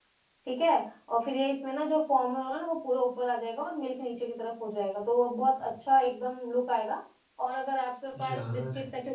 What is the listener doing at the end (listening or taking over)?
listening